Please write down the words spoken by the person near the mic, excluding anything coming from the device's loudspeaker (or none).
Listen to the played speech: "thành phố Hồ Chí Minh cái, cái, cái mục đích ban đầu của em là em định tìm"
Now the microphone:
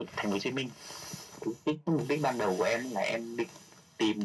none